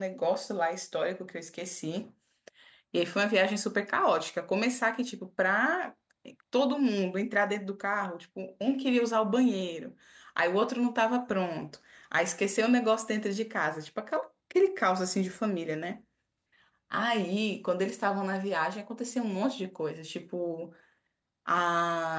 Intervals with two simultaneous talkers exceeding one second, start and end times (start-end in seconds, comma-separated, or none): none